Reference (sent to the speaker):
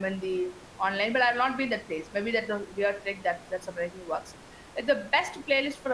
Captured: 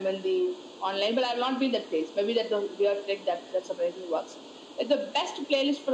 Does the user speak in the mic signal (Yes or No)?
No